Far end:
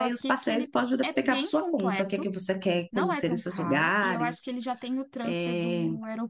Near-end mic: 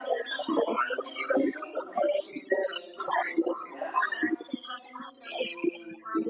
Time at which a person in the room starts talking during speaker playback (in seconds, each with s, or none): none